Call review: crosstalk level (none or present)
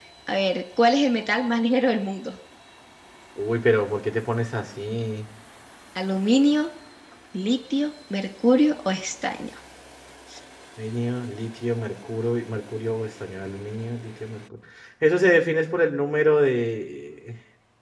none